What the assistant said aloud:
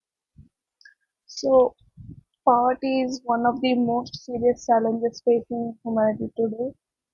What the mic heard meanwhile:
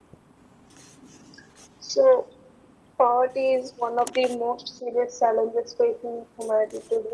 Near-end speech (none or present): none